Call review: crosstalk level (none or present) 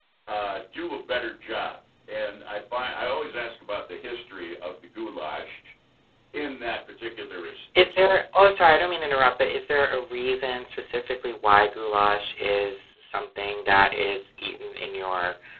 none